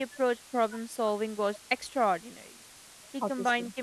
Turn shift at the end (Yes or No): No